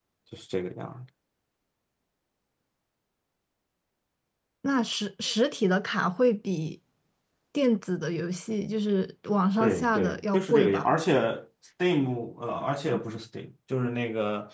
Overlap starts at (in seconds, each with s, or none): 9.6 s